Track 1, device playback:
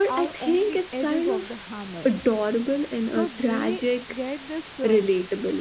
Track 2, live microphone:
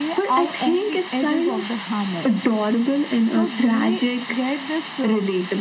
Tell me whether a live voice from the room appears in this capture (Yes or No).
No